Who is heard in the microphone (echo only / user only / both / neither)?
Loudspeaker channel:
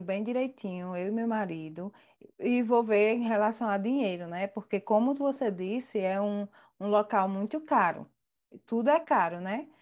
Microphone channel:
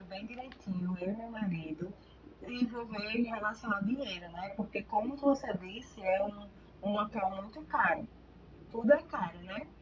echo only